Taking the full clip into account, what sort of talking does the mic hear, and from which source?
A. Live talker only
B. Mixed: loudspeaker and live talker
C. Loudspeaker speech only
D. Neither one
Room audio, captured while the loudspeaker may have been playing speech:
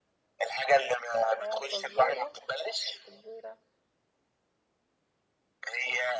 B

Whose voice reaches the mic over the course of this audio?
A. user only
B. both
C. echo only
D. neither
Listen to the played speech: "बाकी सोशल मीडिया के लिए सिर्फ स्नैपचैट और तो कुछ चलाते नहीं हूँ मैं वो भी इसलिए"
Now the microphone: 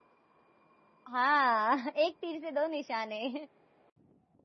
A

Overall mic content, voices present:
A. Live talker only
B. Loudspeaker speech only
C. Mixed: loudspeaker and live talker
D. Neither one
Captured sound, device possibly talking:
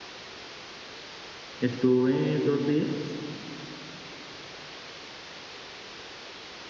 A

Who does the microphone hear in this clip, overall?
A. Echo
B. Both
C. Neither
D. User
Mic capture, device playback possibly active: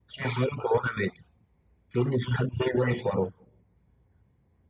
A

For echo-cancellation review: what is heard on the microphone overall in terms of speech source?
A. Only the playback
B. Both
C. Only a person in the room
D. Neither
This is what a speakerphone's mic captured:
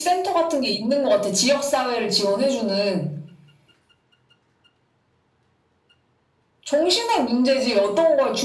A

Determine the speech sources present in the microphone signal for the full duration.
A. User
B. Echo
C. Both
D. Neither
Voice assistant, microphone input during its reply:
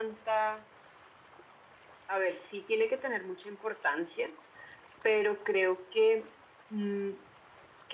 B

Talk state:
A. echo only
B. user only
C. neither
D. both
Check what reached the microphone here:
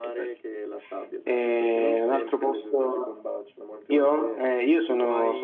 A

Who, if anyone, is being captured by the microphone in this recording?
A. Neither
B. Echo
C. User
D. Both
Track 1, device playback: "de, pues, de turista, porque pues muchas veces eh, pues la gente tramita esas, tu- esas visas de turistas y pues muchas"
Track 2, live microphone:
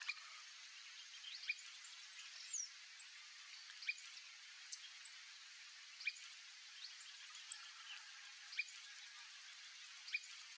A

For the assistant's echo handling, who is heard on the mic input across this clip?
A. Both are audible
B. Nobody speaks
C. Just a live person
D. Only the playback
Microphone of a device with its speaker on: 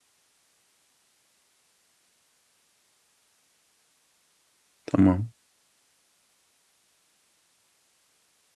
C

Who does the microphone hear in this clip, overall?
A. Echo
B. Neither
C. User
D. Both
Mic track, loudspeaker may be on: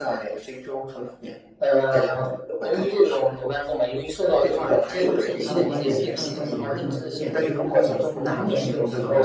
D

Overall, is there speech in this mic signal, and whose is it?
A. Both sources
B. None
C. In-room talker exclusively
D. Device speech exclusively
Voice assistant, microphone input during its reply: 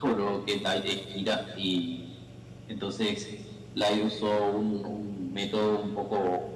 D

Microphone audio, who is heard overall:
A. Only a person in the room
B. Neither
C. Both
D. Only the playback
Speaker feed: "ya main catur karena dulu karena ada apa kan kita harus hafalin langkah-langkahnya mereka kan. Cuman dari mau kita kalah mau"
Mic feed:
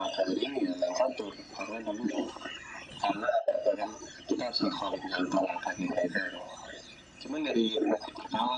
D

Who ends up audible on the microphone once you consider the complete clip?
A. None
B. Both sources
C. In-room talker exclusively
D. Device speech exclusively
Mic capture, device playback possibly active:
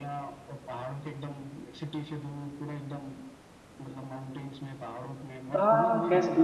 B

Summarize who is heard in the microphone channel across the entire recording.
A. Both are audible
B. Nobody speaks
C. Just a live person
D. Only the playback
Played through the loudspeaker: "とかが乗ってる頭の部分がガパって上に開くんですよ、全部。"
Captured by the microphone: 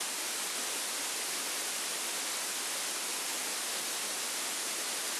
B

